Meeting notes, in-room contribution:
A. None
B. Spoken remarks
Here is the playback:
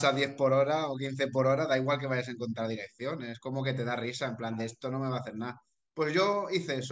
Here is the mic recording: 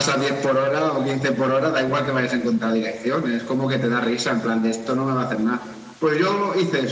A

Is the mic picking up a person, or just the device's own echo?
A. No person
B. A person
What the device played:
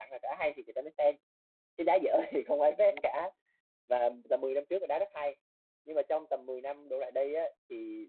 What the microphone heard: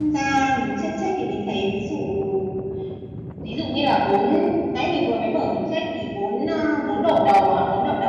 B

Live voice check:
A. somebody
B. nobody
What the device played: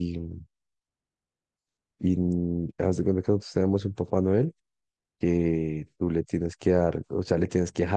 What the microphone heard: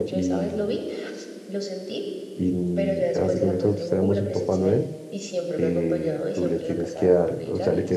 A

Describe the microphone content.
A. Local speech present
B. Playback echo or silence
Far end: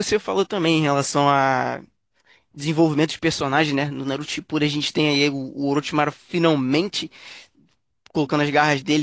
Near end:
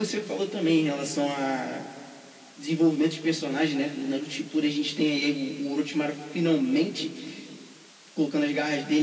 B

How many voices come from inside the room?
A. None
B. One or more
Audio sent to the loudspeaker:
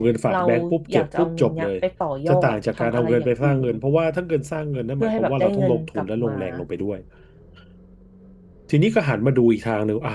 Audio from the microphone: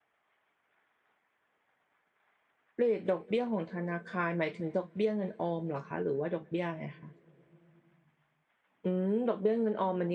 B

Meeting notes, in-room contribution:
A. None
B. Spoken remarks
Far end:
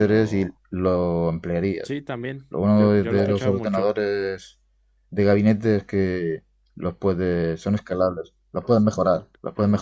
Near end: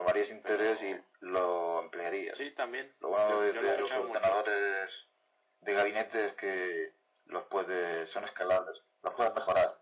A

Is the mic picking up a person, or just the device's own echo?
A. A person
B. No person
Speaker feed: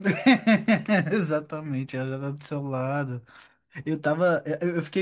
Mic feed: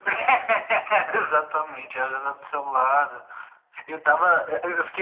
B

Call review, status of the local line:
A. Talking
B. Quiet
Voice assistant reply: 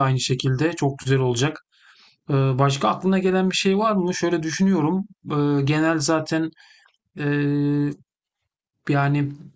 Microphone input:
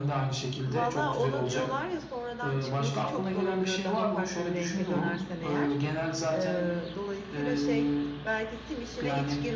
A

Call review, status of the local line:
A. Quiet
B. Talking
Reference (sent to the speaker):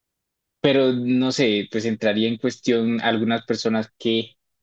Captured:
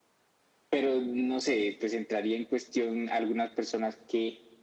A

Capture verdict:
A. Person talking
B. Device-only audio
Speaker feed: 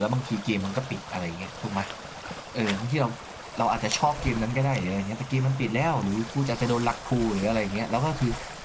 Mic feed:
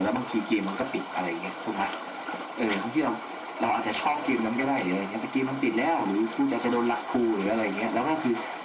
B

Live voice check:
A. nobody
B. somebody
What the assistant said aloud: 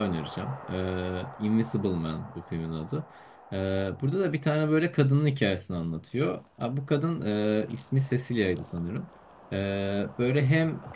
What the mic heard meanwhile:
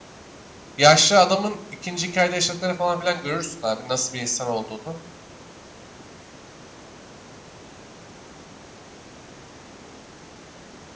B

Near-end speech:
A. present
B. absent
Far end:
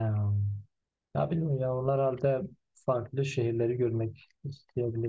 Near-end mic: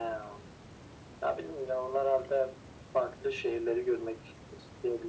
B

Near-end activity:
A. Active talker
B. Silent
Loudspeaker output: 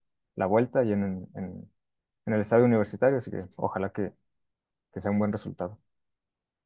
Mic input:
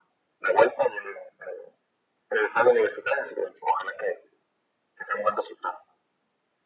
B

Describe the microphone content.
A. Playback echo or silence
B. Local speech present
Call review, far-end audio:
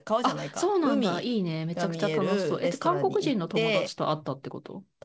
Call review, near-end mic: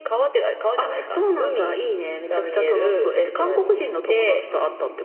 A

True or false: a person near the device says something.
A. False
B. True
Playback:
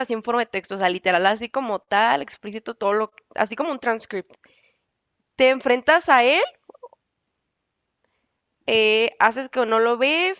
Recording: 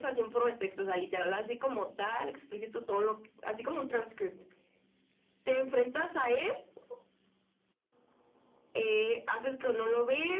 A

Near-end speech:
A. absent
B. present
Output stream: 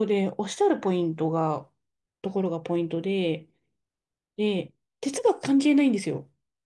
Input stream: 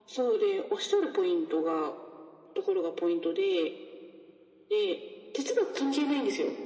A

